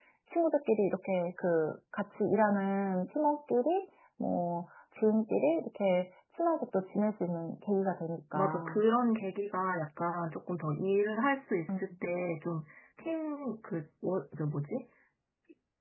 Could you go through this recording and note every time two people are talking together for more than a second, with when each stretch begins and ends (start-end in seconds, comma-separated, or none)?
none